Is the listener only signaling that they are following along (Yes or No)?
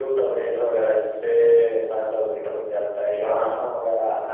No